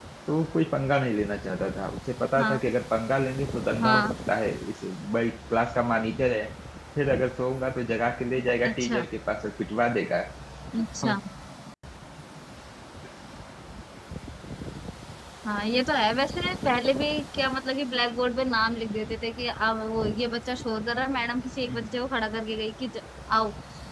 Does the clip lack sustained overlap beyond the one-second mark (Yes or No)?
Yes